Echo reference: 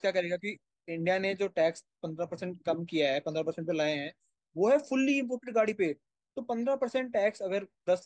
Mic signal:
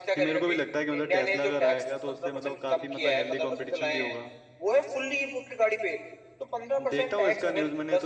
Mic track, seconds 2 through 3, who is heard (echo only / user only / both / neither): both